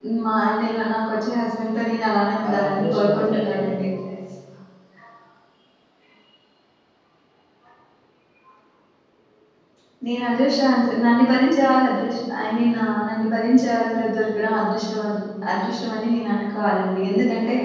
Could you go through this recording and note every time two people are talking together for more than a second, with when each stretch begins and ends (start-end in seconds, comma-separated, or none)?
2.4-3.9